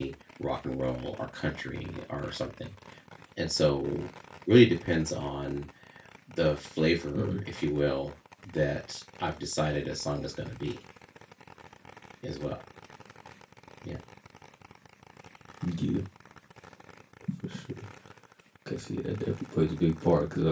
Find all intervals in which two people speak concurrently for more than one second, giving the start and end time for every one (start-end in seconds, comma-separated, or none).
none